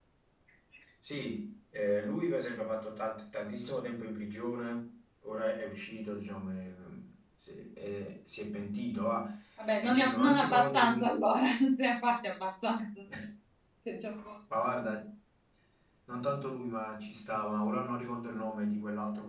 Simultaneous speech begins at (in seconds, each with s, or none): 9.8 s